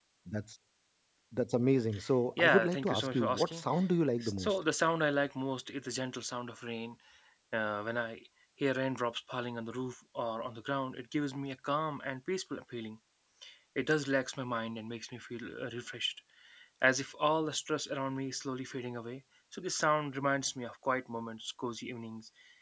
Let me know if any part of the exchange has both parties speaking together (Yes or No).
Yes